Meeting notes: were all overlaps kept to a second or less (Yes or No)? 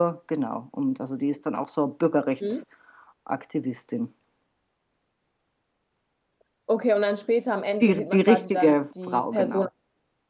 No